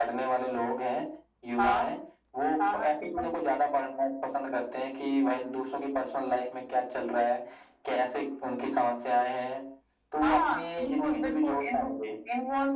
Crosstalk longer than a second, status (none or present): present